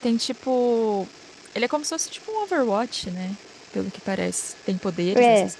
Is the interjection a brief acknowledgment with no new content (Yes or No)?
No